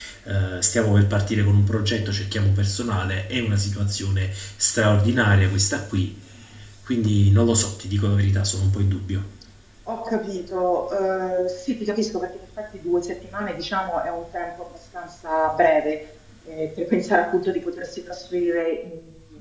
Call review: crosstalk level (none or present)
none